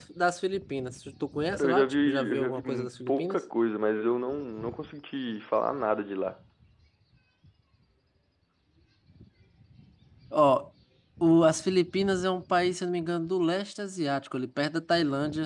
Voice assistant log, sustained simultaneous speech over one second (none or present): present